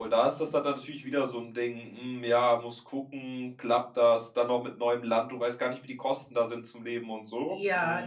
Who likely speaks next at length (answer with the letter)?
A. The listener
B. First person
A